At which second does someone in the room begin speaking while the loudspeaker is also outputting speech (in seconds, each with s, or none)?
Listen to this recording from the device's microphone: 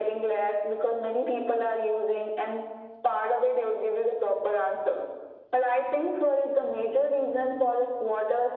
none